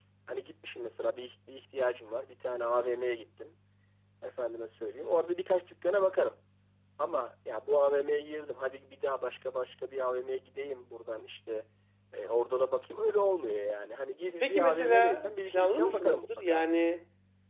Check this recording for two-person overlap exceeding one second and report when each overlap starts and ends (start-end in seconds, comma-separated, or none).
14.4-16.6